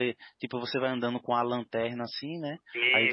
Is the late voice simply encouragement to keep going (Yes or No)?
Yes